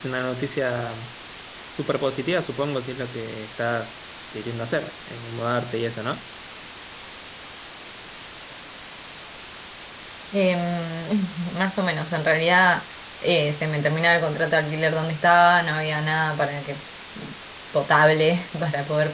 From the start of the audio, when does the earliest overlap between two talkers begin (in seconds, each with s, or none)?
none